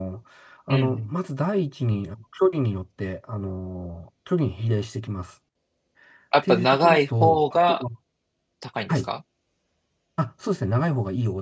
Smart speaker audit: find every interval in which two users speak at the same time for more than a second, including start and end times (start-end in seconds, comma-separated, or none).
6.5-7.8